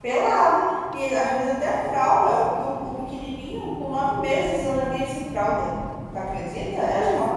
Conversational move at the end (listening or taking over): listening